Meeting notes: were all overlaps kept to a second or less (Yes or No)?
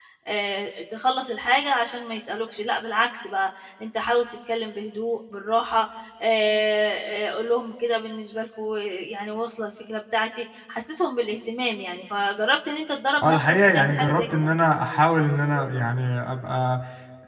No